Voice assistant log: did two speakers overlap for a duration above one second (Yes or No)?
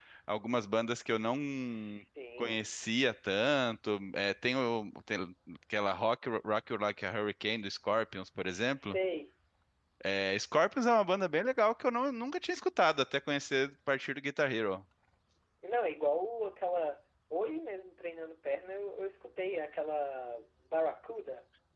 No